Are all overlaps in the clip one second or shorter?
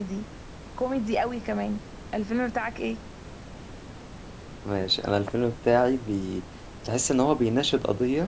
Yes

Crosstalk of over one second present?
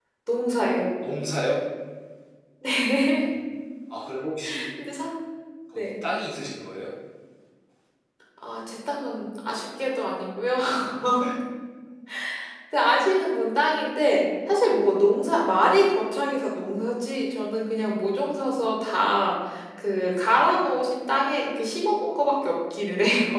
No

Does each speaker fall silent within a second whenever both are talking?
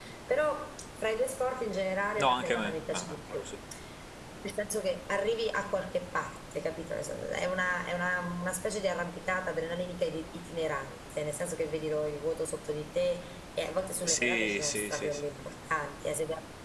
No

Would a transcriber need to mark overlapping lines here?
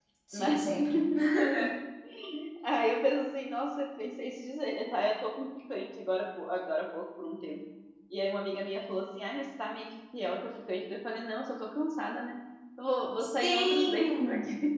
Yes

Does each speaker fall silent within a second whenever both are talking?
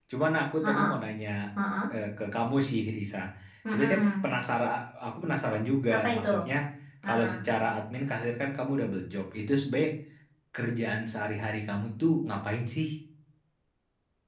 Yes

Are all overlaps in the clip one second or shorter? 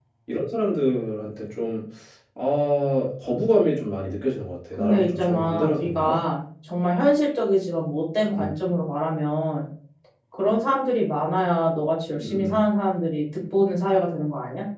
No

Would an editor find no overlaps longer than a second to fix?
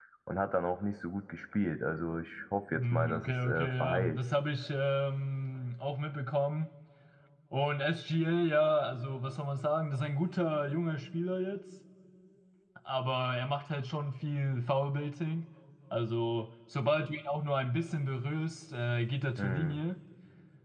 No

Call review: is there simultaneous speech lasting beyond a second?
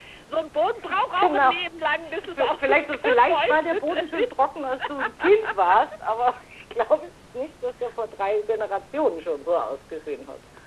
Yes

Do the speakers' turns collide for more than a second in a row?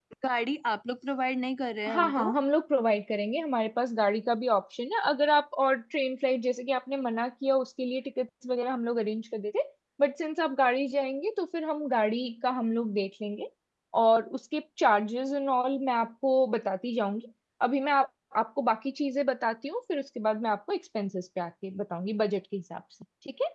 No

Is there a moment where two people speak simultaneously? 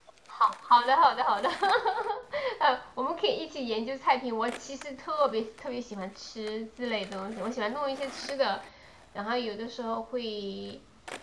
No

